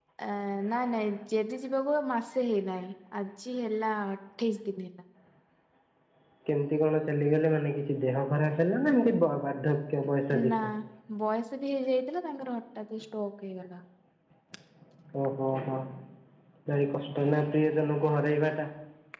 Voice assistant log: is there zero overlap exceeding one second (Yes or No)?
Yes